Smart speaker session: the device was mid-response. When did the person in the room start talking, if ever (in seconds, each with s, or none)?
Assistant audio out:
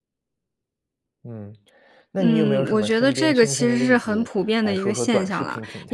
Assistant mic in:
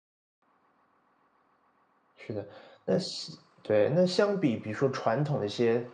2.2 s